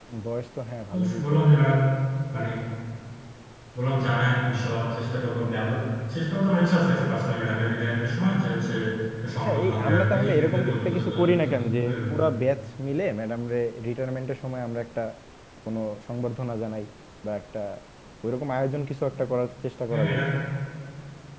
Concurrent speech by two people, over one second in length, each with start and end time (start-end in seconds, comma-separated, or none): 9.4-12.0